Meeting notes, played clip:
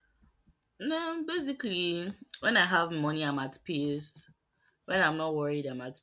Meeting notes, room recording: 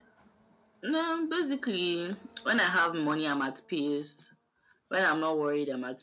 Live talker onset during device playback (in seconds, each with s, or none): none